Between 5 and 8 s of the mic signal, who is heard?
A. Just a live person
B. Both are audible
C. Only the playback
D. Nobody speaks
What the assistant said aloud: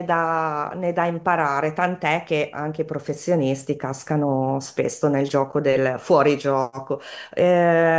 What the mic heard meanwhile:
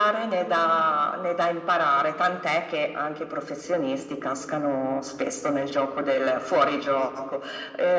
C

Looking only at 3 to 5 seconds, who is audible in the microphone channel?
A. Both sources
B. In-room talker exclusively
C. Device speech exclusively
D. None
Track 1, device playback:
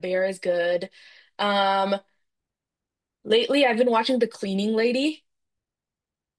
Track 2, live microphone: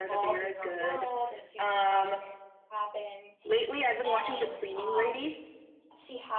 A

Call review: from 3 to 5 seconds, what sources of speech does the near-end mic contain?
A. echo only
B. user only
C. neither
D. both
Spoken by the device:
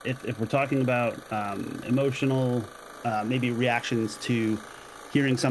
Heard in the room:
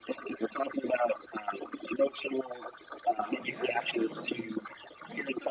D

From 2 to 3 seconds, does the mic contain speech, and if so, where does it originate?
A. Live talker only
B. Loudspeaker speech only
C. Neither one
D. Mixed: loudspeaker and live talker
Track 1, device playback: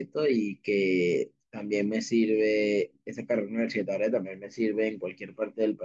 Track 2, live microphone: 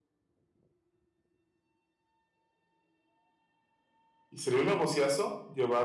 C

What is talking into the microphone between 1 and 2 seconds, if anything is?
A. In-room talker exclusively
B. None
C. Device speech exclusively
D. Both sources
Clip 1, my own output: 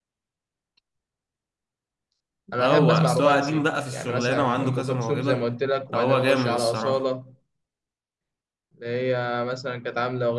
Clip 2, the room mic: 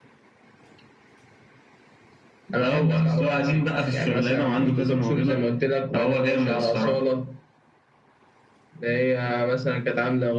B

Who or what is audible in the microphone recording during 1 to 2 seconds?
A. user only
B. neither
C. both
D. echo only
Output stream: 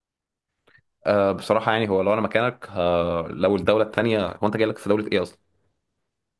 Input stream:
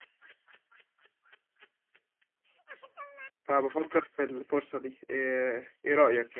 B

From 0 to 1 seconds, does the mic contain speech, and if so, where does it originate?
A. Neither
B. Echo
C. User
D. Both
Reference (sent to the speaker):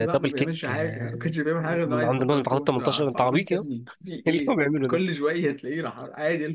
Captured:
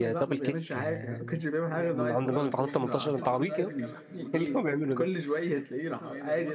B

